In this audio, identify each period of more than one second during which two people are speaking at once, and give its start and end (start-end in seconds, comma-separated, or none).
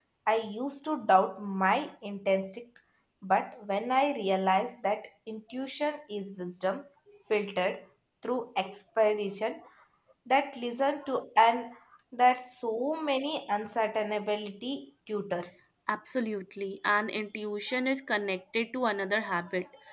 none